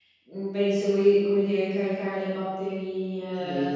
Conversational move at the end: taking over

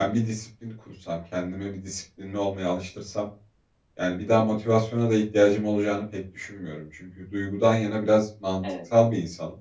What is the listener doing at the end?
listening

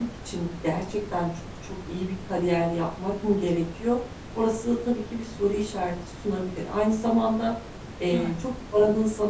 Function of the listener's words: listening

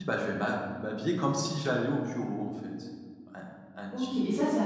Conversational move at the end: taking over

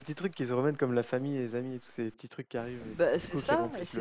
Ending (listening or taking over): taking over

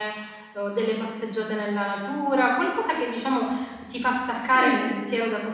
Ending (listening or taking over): listening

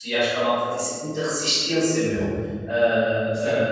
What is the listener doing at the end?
taking over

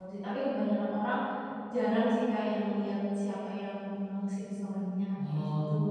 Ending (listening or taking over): taking over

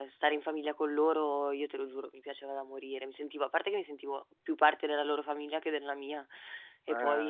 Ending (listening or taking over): listening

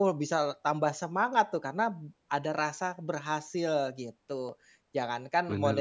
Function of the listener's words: listening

